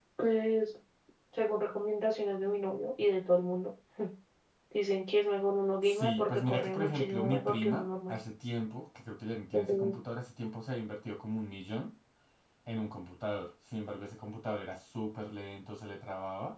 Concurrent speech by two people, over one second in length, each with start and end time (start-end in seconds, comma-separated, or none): 5.8-8.2